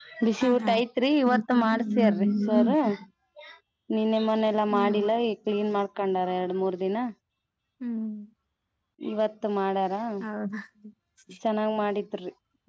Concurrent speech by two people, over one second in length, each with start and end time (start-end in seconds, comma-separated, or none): 1.3-2.7